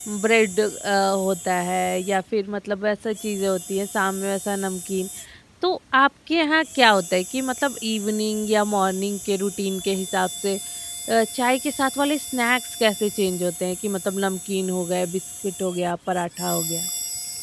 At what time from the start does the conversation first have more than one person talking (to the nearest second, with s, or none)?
none